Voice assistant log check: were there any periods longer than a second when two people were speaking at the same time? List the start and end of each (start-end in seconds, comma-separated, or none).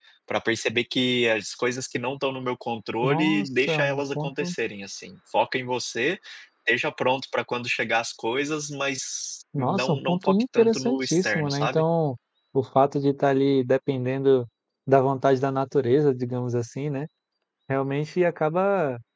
3.0-4.5, 9.6-11.8